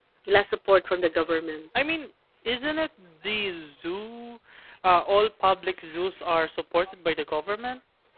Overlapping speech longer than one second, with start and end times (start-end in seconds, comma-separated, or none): none